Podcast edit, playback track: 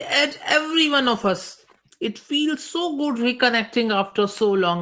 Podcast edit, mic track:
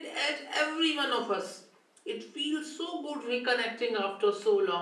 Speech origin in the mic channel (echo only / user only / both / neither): echo only